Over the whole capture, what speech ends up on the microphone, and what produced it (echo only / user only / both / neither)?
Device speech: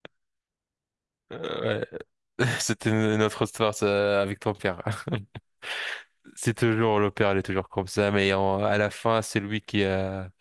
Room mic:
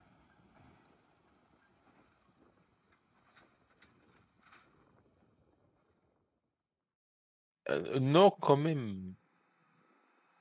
user only